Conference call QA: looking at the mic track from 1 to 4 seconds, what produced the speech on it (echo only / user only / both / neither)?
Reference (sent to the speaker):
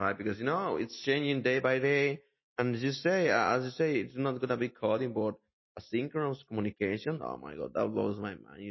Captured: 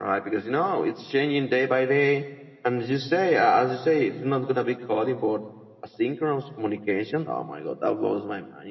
echo only